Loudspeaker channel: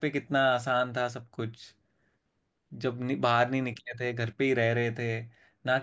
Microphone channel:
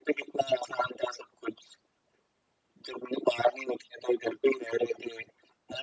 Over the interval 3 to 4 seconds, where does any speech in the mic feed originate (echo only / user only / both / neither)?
echo only